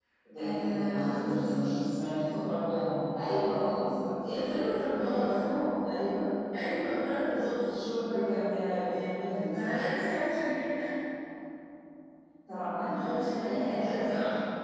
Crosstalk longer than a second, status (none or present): present